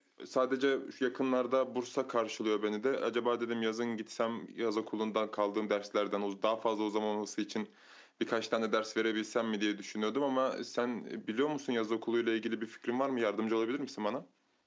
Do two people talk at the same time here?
No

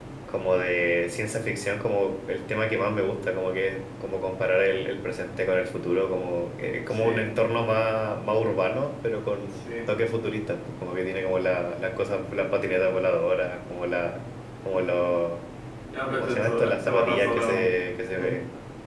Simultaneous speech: Yes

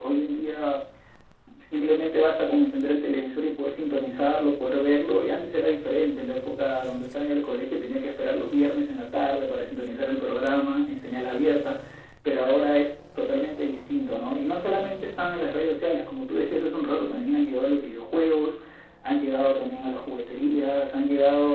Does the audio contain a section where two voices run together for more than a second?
No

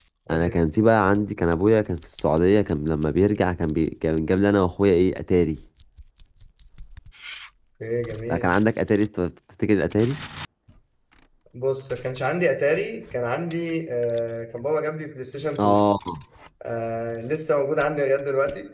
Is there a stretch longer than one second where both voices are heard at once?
No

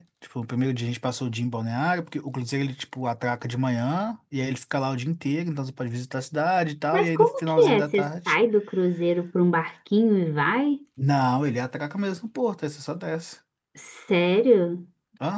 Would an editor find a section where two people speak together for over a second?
Yes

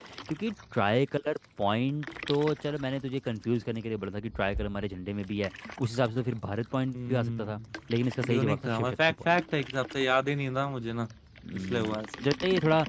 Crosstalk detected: Yes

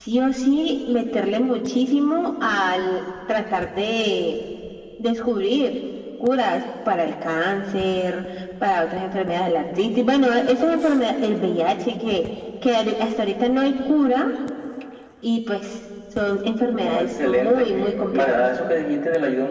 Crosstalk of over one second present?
Yes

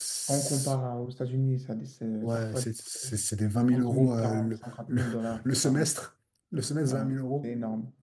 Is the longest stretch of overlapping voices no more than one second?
No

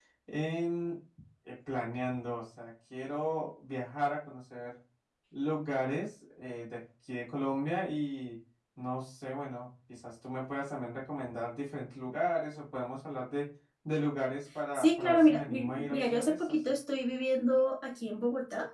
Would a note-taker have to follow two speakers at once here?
Yes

